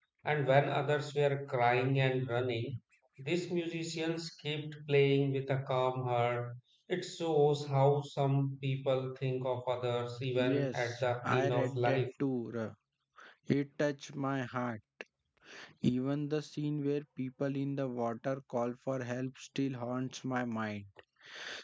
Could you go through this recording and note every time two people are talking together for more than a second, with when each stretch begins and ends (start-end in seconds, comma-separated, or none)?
10.4-12.0